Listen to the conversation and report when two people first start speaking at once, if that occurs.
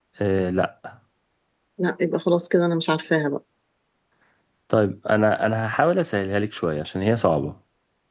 none

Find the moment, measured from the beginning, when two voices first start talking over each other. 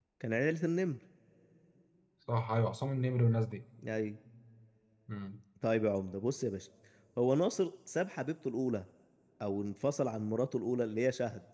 none

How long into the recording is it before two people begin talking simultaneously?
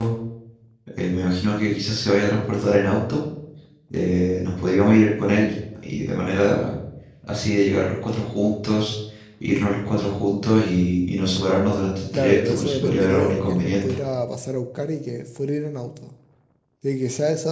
12.1 s

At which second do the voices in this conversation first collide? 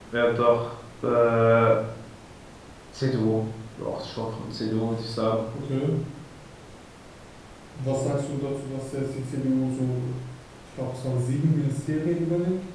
none

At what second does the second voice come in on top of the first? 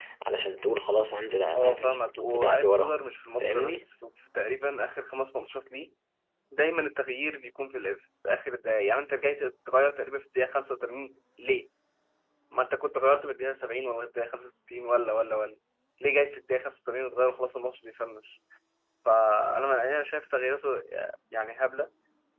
1.6 s

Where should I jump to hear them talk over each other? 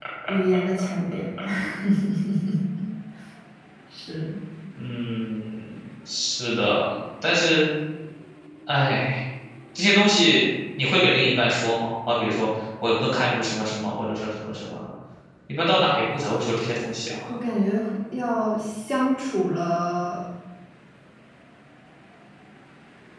none

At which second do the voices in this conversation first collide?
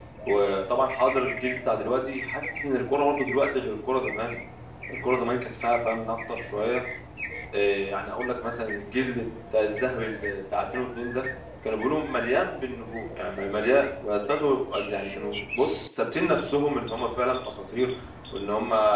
none

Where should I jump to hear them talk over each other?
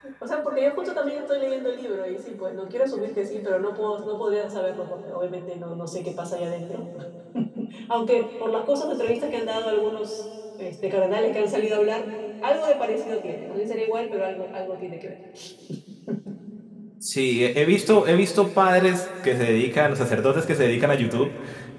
none

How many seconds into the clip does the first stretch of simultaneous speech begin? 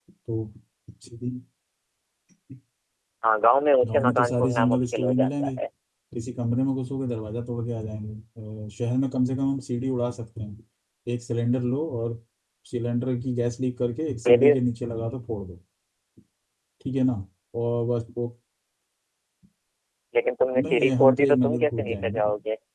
3.9 s

